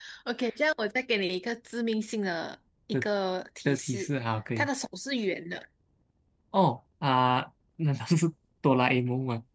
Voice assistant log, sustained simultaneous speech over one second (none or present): none